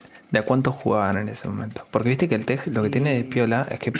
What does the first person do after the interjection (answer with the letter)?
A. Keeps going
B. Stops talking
A